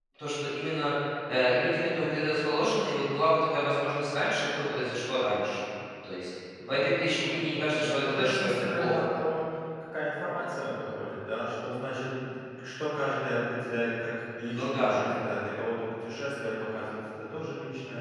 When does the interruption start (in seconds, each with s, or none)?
6.7 s